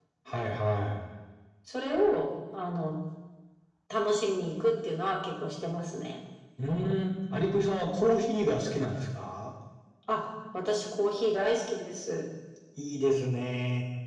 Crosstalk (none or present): none